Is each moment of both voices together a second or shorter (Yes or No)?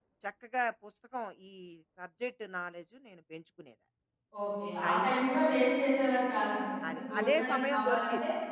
No